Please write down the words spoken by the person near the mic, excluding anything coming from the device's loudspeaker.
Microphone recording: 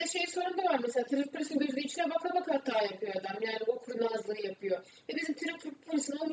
none

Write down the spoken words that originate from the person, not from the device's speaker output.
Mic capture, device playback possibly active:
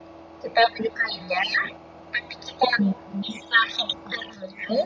none

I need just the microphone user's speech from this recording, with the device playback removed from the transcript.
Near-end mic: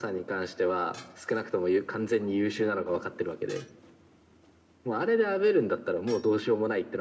none

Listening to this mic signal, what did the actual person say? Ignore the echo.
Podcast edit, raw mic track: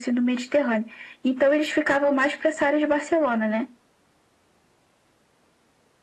none

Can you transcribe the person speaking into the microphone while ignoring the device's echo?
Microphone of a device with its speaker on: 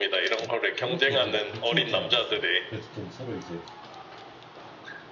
막 그렇게 애들이 막 미쳐 있진 않았어. 그래도 좀 서로 이제

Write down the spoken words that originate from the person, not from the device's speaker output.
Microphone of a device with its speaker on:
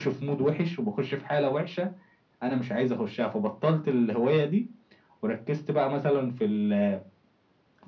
none

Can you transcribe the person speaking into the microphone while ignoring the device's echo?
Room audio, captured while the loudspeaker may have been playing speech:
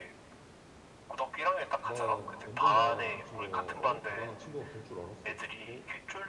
난 언젠간 그 친구가 어? 대단한 친구가 될 줄 알았어. 어?

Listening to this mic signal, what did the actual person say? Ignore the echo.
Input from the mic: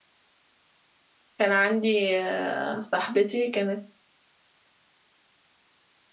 كان عندي آه، صاحبتي كانت

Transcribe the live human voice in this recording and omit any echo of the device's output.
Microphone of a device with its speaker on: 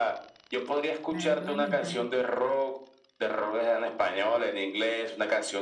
la de Joe me encanta.

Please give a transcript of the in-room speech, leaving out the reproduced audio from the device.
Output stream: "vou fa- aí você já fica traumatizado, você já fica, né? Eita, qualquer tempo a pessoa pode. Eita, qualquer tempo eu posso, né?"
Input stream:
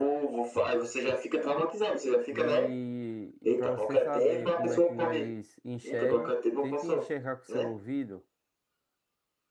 E, e para você saber como é que nós enxerga, tente enxergar com seu ouvido.

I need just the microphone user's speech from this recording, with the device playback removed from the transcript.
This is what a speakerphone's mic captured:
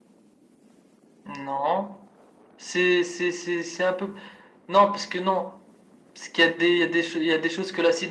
none

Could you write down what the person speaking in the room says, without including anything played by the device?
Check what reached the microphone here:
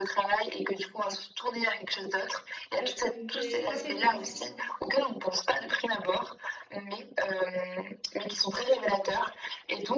euh, des appétences.

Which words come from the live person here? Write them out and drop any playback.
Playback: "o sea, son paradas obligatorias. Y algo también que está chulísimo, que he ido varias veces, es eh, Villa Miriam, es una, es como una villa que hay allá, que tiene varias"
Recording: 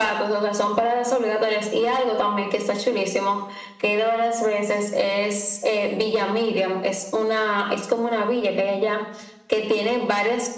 none

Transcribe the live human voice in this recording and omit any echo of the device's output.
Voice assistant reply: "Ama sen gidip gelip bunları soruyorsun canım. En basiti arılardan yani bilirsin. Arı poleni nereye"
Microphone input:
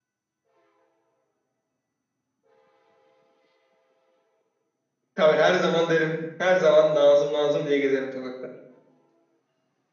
Tabii her zaman derim. Her zaman Nazım Nazım diye gezerim sokakta.

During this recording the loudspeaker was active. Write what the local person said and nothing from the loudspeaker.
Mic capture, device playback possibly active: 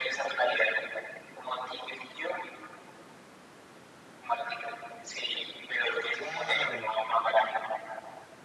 ¡Wow!

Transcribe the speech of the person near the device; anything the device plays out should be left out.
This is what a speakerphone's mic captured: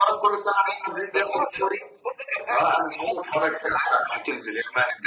none

